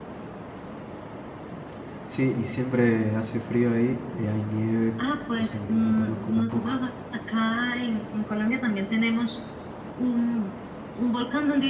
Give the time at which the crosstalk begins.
5 s

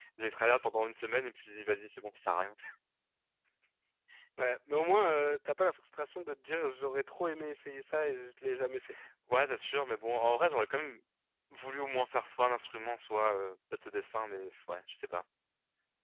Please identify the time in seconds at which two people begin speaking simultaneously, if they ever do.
none

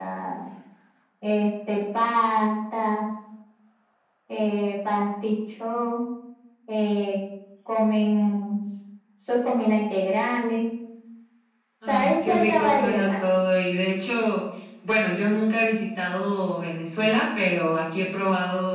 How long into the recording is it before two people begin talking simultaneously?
12 s

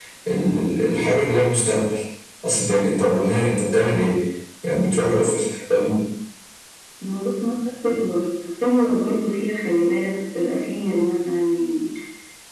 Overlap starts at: none

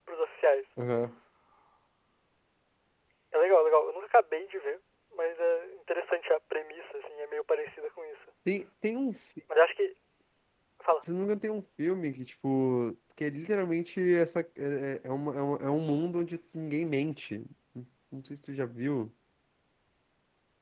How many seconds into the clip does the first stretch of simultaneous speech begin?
none

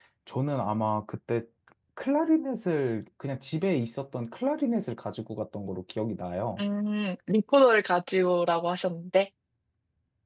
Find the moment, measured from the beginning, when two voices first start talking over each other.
none

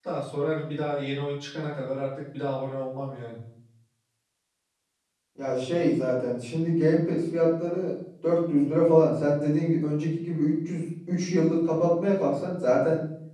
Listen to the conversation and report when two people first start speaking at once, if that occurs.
none

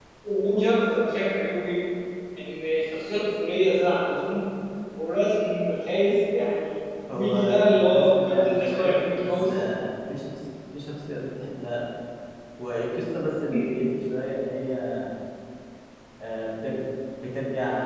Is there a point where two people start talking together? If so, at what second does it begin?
7 s

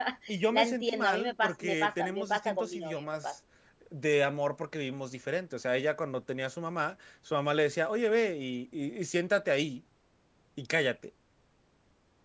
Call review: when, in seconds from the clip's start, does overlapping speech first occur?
1 s

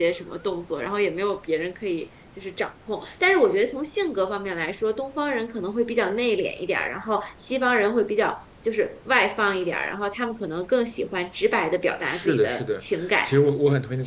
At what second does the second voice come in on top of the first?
12 s

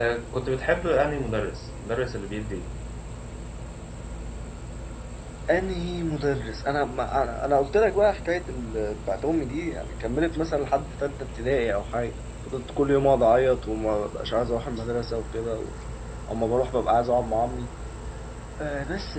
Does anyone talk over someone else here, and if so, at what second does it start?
none

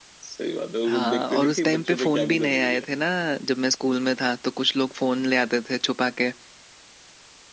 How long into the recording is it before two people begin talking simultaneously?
1 s

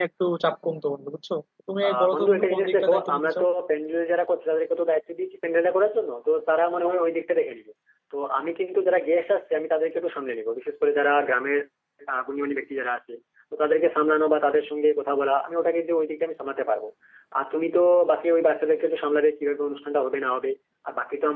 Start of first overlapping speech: 2 s

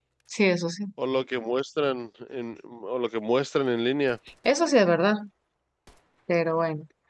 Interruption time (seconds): none

